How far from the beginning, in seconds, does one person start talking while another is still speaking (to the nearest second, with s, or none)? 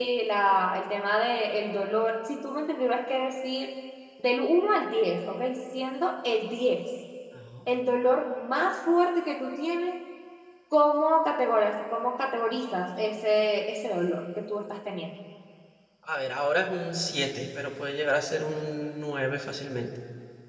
none